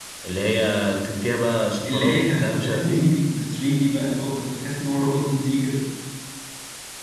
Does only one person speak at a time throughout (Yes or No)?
No